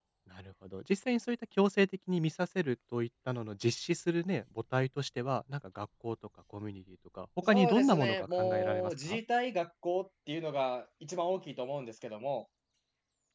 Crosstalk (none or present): present